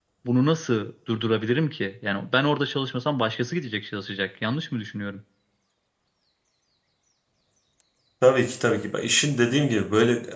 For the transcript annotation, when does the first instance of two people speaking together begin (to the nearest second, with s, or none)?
none